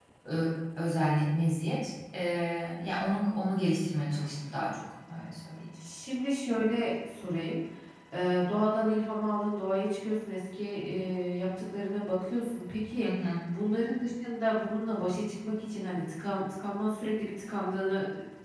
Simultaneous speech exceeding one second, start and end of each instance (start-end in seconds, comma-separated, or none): none